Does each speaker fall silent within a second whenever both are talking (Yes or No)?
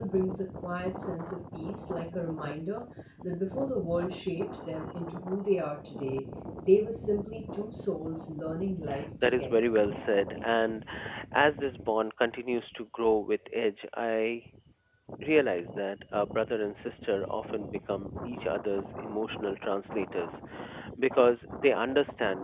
Yes